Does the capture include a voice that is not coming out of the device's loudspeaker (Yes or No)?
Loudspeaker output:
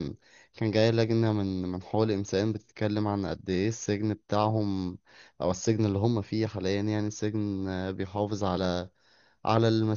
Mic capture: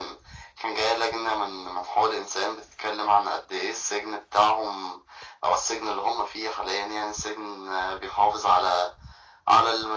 No